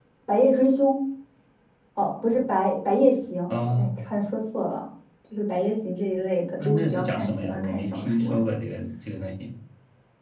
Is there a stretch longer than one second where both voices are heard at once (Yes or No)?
Yes